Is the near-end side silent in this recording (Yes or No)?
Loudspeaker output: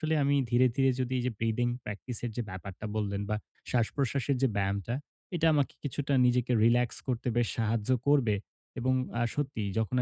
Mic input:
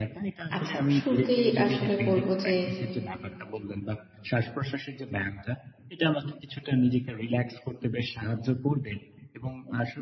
No